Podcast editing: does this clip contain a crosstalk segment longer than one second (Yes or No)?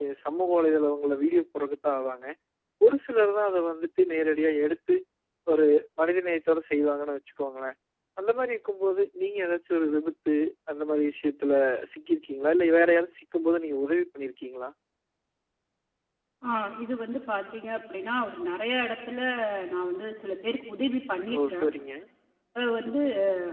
No